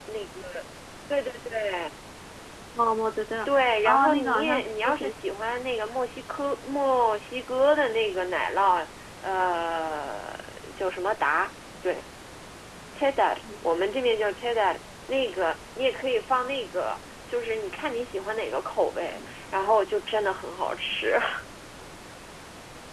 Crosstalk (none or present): present